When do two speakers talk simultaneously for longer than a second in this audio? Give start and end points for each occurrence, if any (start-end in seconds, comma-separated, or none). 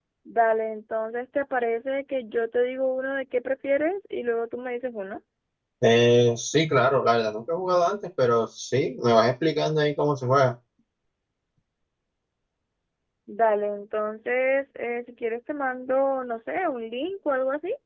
none